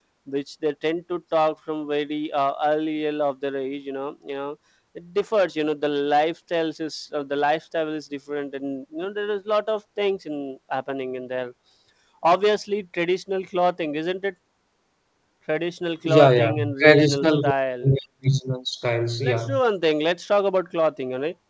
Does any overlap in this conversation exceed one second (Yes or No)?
Yes